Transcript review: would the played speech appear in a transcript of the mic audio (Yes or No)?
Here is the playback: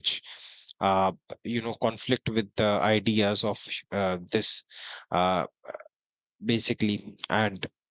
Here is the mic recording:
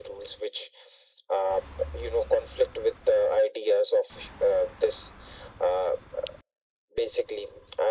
Yes